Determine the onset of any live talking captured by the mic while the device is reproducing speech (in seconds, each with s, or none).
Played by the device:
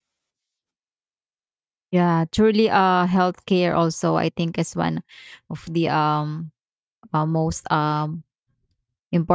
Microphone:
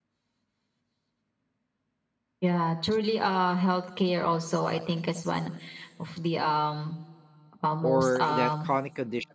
7.8 s